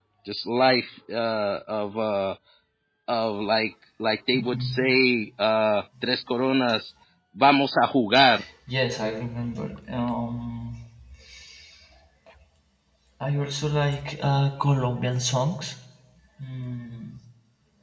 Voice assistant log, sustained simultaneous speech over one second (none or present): none